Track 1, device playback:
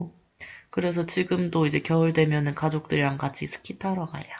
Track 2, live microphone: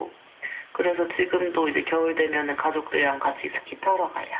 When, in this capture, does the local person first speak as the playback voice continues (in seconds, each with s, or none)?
none